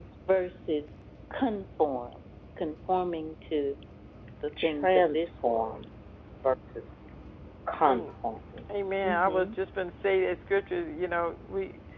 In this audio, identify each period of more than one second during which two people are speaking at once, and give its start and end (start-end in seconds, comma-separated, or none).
4.6-5.8